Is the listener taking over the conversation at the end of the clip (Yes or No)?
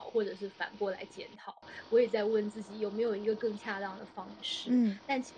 No